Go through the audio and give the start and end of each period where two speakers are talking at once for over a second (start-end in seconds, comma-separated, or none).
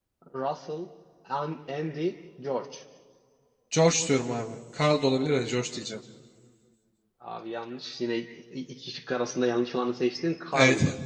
none